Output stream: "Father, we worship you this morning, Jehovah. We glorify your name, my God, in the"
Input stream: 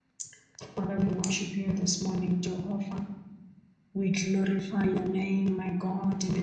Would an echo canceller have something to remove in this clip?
Yes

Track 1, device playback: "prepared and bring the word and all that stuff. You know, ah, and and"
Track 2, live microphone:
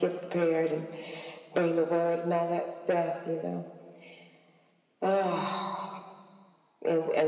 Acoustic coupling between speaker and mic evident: Yes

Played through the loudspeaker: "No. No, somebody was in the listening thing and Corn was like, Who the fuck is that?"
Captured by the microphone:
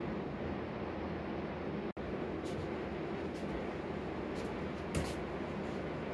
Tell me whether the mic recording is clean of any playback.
Yes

